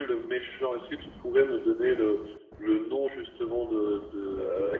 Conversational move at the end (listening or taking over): listening